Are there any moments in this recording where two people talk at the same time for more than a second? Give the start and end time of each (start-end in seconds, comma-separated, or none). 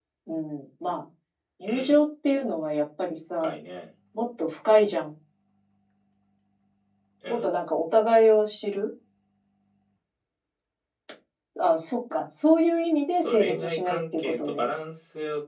13.1-14.7